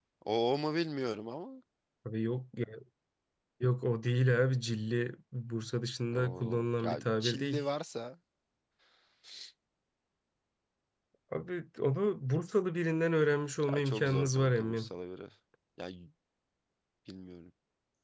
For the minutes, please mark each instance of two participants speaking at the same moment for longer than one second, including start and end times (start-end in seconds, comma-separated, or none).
6.1-7.6, 13.7-14.9